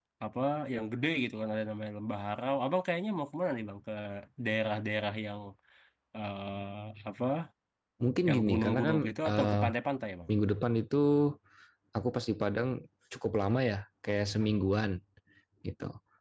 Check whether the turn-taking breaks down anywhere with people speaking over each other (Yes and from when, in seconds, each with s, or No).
Yes, from 8.3 s